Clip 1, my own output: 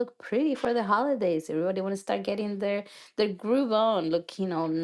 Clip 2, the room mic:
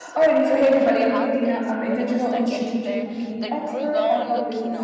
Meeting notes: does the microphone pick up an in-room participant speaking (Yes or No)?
Yes